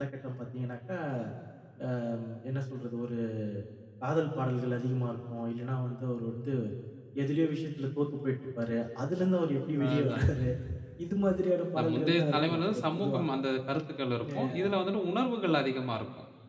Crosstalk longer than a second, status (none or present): present